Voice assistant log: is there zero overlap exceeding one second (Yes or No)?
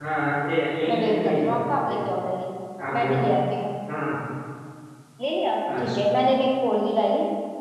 No